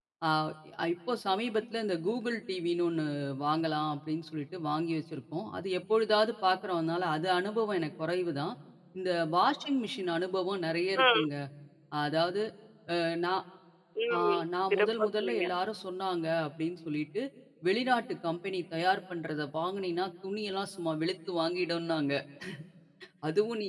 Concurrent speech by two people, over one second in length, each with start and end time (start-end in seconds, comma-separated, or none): 14.2-15.4